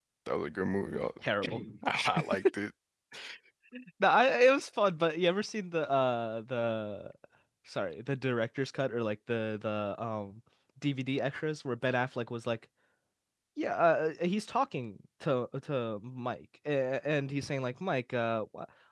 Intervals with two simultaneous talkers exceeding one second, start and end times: none

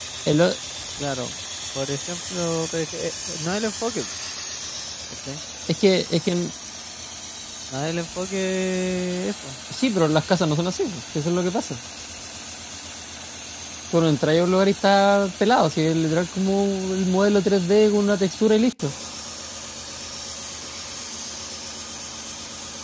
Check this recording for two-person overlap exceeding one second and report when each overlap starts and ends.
none

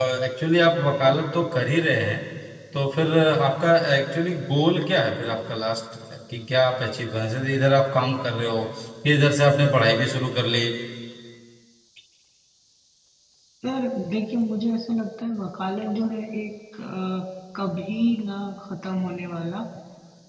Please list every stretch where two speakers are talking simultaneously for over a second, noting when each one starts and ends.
none

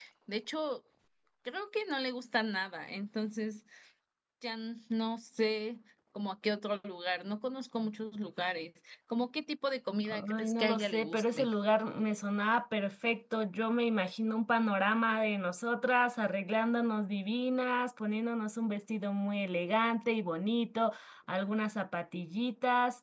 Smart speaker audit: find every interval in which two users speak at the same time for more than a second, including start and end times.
10.3-11.5

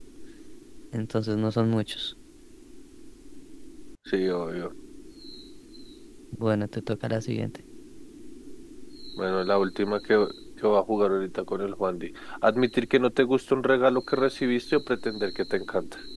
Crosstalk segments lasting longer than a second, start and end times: none

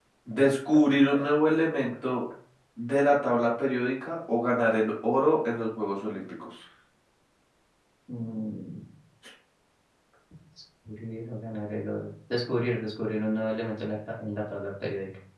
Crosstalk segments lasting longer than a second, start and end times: none

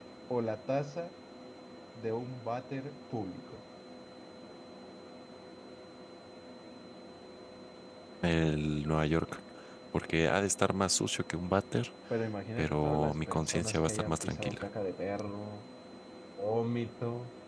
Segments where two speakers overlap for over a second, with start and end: 12.6-14.6

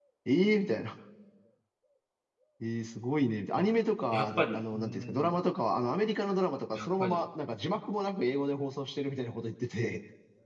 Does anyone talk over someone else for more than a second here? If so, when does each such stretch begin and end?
4.1-5.3

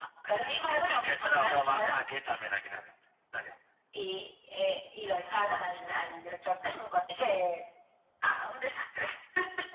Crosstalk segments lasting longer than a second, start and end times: 0.7-1.9

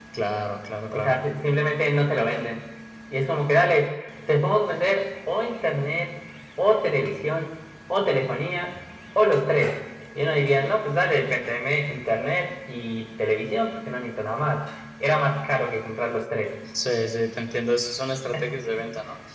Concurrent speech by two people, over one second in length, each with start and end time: none

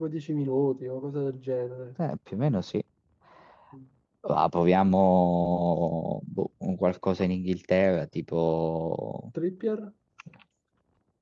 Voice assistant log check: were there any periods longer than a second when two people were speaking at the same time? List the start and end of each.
none

